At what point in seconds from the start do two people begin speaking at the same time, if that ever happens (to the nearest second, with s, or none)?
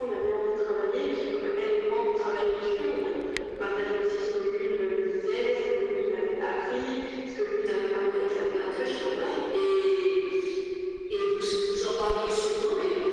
8 s